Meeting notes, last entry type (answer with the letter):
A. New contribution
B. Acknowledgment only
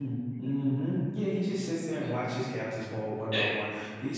B